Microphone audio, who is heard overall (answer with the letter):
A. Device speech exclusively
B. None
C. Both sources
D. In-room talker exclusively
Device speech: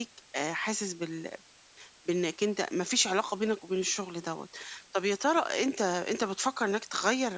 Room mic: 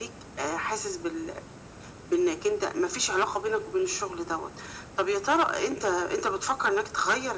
A